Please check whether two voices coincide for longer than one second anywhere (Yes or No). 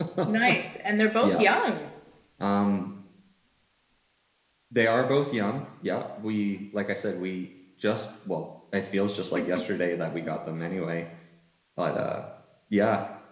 No